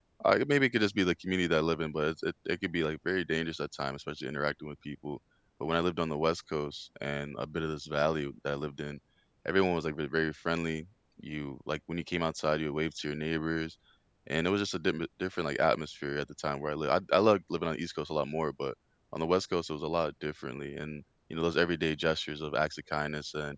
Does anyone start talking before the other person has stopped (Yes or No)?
No